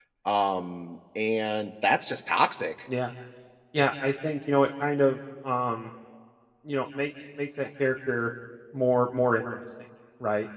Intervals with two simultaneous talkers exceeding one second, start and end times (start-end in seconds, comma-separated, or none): none